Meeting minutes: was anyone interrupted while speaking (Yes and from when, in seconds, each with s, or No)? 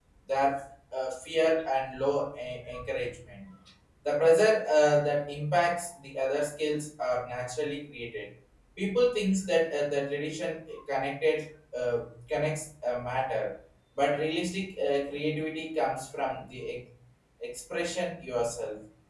No